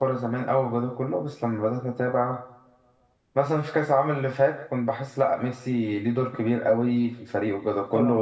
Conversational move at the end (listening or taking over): listening